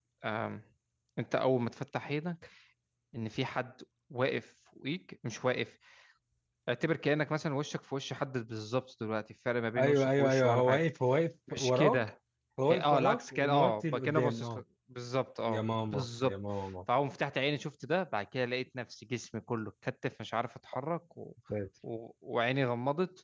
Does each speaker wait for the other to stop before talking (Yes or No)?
No